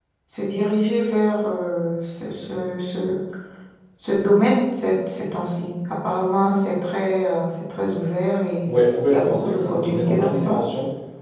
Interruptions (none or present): present